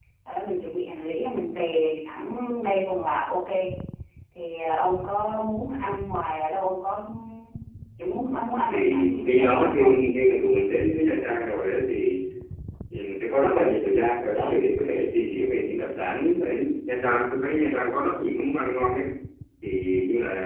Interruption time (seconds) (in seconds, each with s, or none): 8.7 s